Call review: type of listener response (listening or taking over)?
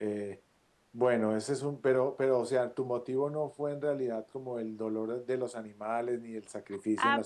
taking over